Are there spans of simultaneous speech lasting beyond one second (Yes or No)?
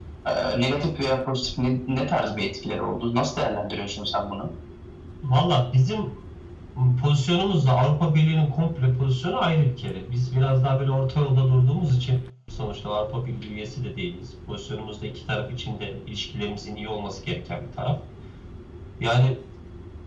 No